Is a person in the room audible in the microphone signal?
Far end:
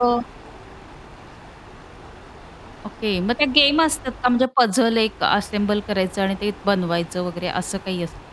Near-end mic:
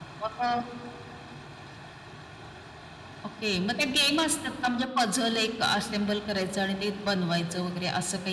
No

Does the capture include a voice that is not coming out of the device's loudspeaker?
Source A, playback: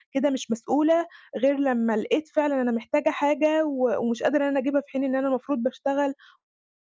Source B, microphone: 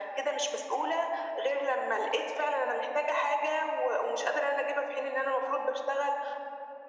No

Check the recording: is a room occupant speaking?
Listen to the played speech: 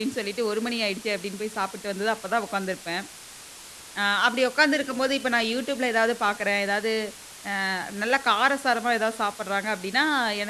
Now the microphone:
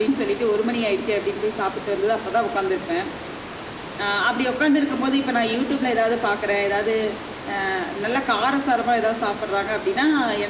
No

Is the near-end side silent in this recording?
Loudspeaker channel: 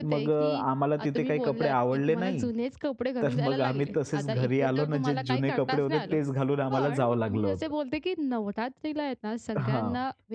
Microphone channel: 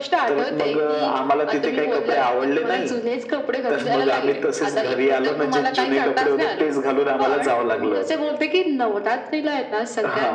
Yes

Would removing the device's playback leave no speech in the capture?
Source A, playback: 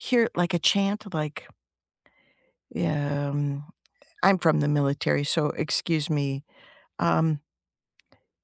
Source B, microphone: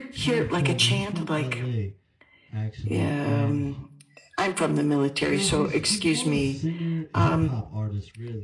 No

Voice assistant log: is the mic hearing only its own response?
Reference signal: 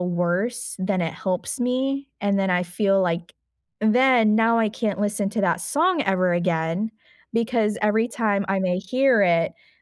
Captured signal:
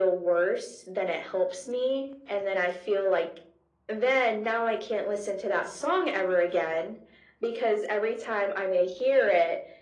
Yes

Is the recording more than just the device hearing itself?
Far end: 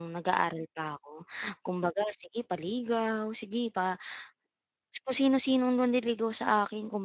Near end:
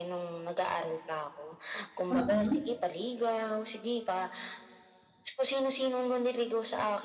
Yes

